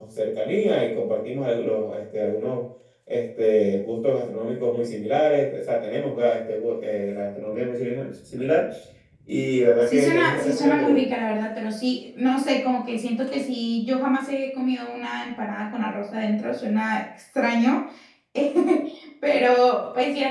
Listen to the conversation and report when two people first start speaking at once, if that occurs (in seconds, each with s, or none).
9.8 s